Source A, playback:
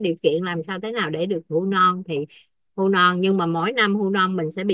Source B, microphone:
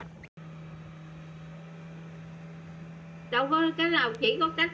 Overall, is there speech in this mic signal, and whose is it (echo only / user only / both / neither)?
user only